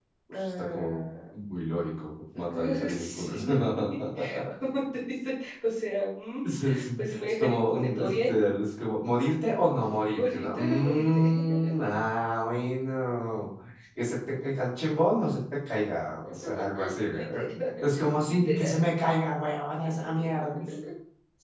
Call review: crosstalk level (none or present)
present